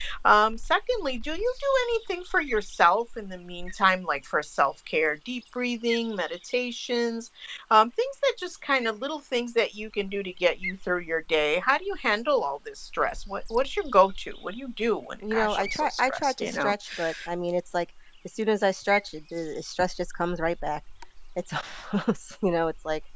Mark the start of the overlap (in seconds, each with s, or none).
15.2 s